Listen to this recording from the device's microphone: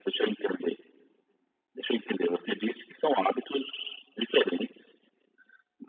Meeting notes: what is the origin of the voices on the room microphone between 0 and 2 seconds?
echo only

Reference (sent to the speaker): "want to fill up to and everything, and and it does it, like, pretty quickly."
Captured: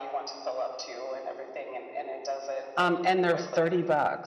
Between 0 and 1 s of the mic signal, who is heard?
echo only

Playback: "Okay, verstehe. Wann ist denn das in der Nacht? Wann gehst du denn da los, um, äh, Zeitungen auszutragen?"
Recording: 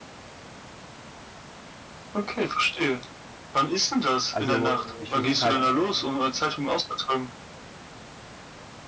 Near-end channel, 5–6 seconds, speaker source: both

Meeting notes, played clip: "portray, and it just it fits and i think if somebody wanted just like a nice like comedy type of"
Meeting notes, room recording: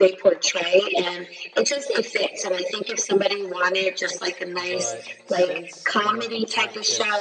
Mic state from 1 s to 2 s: echo only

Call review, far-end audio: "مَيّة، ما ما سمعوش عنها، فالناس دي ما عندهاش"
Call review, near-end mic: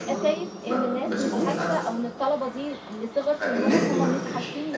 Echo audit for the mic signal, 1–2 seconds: both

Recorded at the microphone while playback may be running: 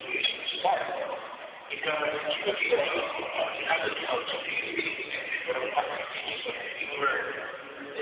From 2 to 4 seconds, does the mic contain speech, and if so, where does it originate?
echo only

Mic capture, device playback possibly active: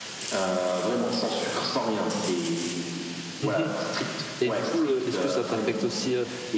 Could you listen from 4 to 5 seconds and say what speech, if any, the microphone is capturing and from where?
both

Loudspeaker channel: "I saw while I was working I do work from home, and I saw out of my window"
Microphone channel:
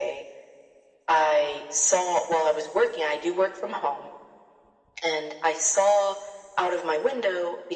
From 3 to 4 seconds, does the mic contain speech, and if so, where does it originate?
echo only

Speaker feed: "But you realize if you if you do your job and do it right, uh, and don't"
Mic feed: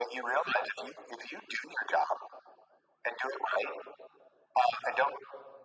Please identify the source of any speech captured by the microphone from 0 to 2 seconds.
echo only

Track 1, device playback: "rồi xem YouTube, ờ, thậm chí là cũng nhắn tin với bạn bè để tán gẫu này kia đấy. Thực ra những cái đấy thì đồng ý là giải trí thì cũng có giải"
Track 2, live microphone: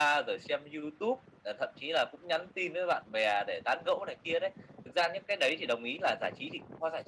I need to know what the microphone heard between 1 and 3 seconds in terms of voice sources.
echo only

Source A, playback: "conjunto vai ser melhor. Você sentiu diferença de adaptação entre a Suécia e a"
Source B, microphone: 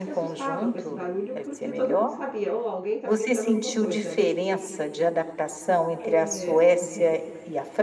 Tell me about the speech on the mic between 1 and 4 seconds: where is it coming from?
both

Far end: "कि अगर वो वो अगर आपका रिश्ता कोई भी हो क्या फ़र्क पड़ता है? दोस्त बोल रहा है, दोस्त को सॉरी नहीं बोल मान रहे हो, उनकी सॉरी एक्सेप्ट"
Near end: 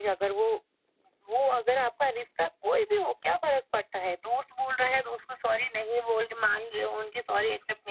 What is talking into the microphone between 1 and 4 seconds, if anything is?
echo only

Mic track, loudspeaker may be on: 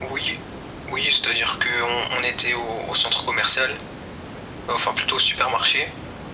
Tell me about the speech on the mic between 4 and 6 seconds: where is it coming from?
echo only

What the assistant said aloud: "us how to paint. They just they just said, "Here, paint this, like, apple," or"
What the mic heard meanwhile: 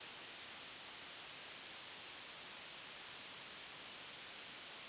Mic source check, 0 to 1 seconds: neither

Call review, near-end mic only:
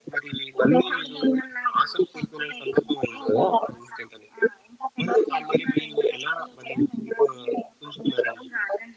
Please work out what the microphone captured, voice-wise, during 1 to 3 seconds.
echo only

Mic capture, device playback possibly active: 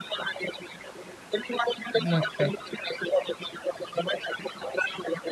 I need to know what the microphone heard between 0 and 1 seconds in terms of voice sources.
echo only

